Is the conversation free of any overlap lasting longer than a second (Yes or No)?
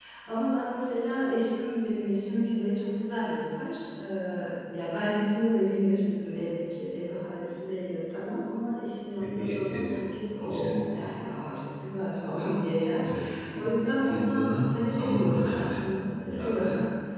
No